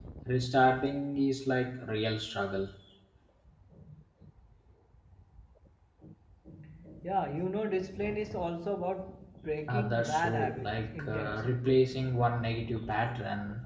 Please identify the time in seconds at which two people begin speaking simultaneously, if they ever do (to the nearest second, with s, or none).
10 s